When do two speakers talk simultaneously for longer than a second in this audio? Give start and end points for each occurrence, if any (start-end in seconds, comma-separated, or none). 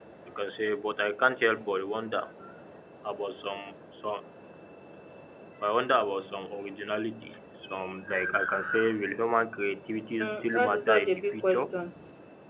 10.2-11.7